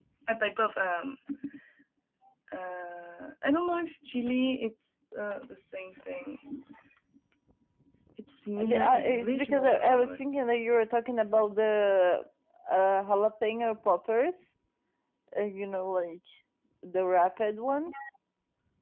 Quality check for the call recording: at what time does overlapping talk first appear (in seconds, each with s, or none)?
8.7 s